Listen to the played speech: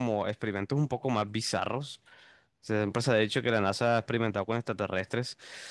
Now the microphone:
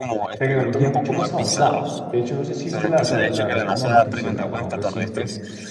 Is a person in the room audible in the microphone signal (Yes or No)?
Yes